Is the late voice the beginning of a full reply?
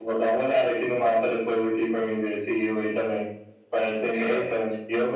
No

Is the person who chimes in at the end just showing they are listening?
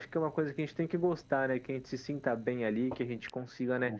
Yes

